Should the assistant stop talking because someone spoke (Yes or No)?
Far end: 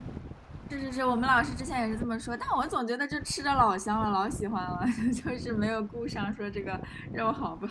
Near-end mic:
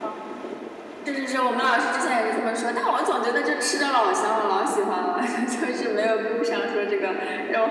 No